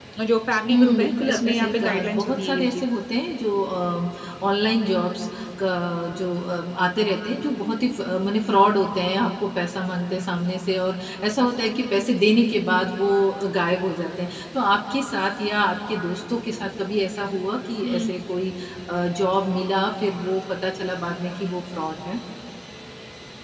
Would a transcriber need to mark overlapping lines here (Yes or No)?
Yes